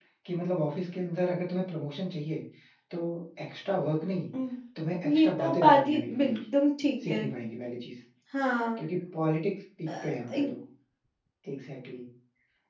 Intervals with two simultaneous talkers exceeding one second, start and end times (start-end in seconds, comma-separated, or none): 5.0-6.4